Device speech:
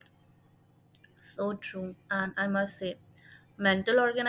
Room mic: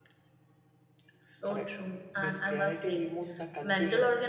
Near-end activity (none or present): present